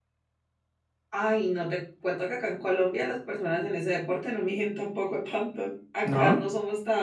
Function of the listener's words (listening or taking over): listening